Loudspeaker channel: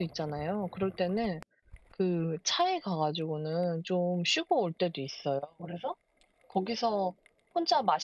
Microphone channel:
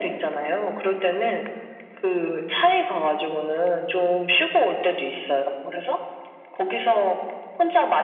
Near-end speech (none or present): none